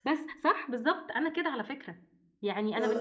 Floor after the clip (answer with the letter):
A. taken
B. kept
B